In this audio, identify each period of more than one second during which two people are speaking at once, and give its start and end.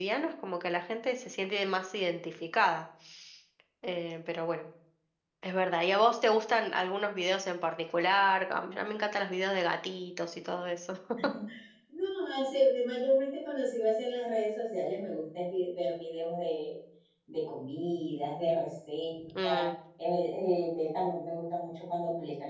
none

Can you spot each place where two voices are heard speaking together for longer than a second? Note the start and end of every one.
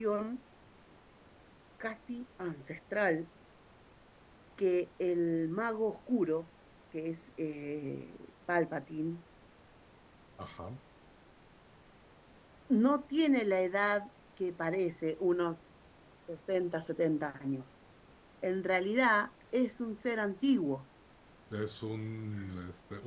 none

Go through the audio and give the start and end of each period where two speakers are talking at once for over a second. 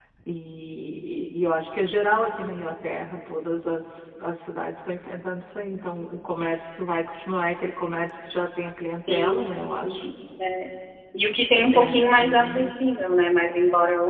11.3-12.7

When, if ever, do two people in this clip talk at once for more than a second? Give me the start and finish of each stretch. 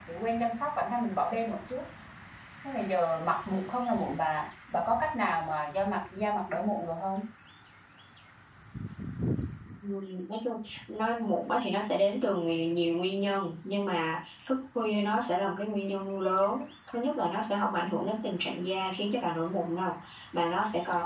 none

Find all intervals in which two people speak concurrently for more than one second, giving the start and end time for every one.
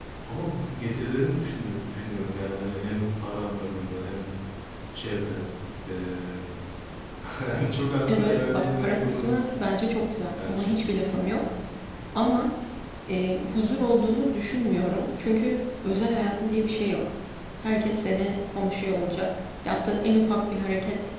8.1-9.4

